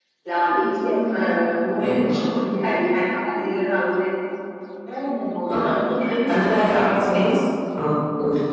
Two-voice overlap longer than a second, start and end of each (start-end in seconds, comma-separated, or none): none